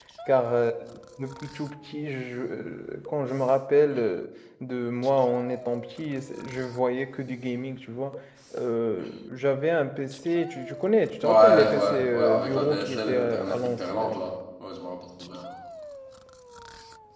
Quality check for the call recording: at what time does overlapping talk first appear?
11.2 s

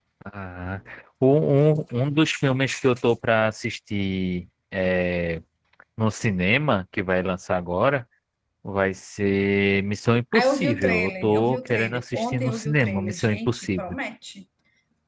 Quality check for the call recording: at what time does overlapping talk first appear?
10.3 s

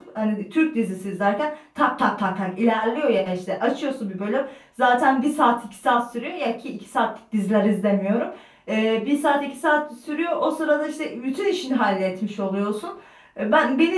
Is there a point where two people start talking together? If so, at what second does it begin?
none

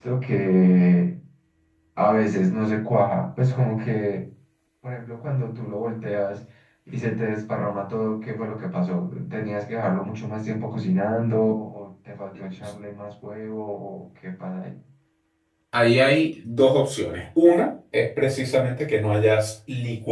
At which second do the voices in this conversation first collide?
none

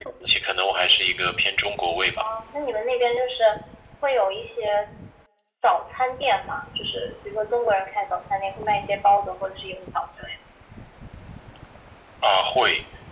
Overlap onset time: none

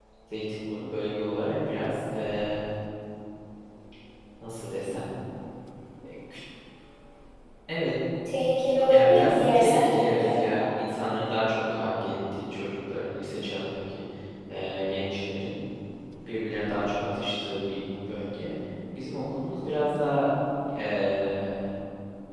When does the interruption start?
8.9 s

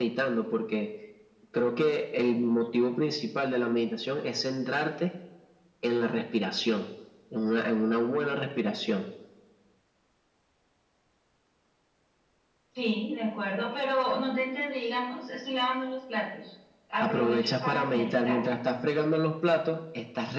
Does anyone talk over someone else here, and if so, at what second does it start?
17.0 s

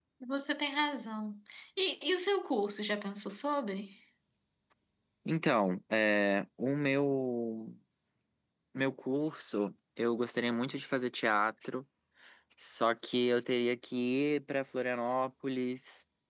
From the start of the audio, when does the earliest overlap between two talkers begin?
none

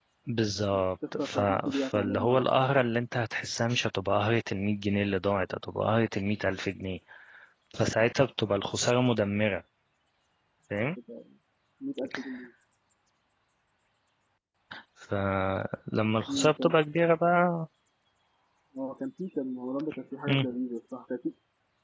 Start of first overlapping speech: 1.2 s

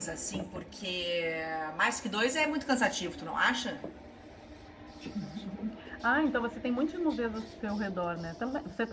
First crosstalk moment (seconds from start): none

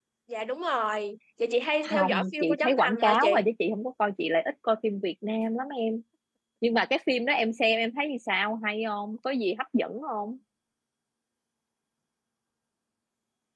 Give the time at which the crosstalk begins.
1.8 s

